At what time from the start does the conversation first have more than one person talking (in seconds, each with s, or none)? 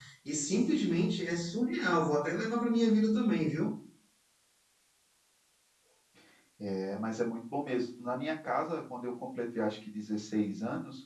none